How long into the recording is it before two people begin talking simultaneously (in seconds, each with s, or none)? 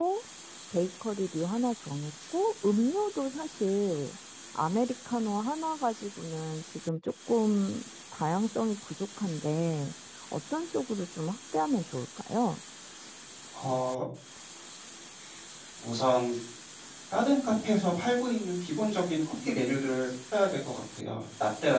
none